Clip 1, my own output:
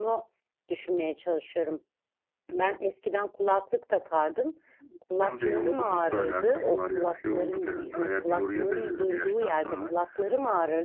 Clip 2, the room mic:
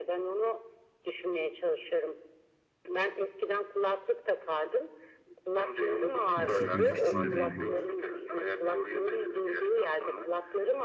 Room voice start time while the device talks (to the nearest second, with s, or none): 6 s